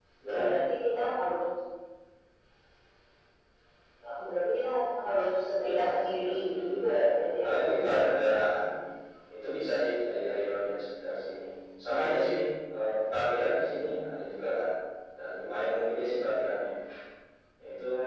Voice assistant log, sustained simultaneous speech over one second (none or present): present